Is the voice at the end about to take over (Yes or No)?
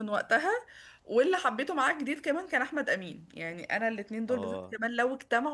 No